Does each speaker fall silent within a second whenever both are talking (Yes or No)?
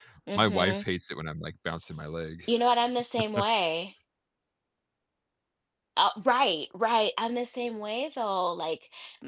Yes